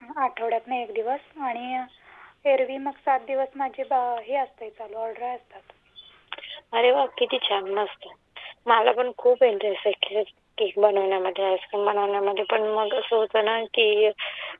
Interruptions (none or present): none